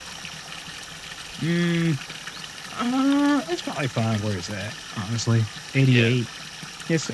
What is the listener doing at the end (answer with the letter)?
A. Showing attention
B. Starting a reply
A